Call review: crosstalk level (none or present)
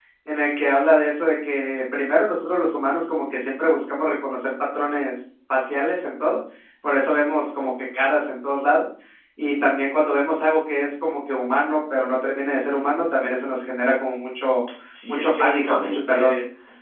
present